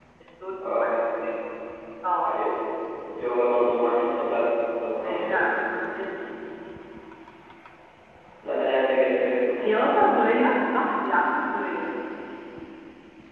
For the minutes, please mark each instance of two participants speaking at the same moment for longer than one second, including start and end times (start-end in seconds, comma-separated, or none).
none